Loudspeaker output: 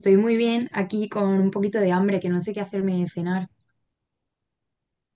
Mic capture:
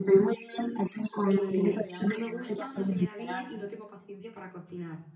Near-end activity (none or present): present